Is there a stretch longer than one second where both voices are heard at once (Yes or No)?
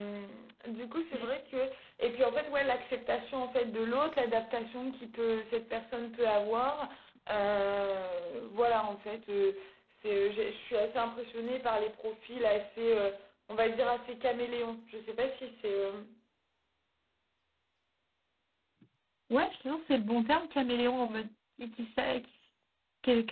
No